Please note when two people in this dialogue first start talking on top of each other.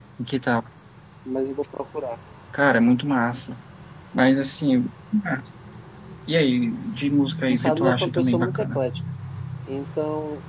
7.5 s

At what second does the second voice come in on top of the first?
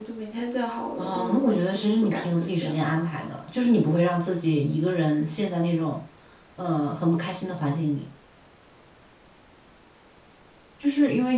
1.0 s

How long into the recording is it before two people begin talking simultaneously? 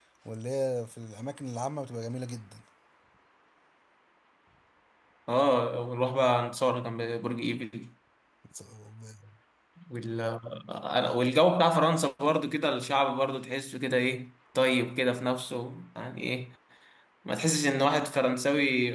none

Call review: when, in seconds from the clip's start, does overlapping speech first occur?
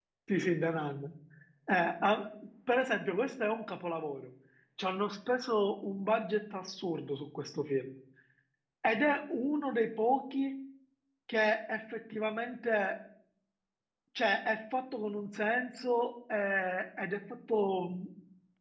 none

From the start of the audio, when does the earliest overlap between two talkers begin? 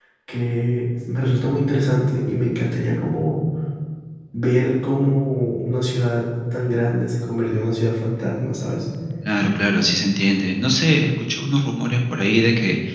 none

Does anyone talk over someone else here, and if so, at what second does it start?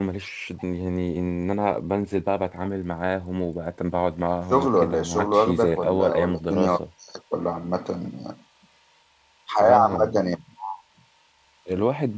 4.5 s

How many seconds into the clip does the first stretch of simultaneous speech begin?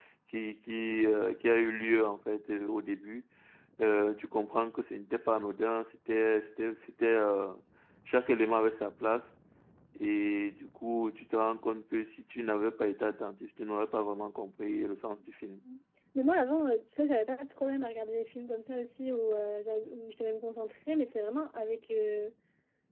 none

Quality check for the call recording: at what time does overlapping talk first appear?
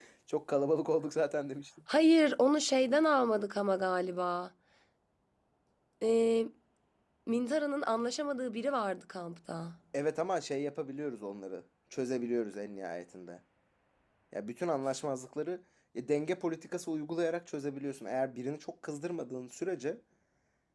none

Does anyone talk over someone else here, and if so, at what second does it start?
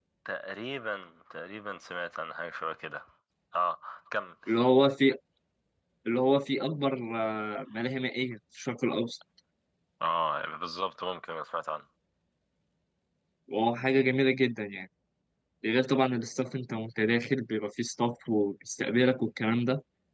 none

